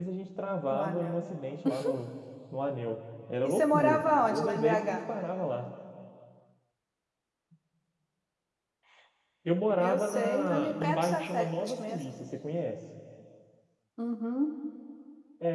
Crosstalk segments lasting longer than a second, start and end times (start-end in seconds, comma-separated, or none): 3.4-5.0, 9.8-12.0